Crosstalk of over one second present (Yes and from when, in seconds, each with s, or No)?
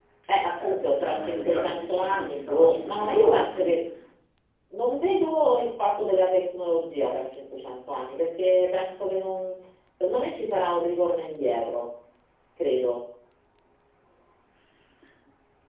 Yes, from 0.6 s